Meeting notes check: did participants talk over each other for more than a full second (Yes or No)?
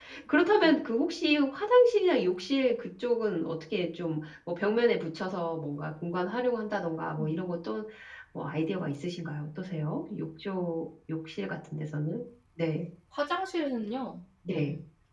No